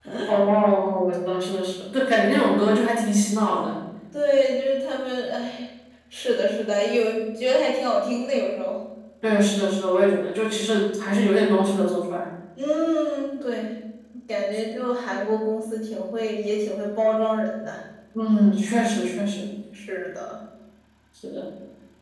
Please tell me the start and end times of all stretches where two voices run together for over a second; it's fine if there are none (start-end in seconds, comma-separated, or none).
none